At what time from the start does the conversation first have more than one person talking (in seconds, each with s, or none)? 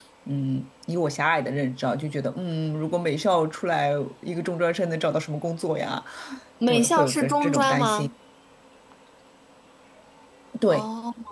6.7 s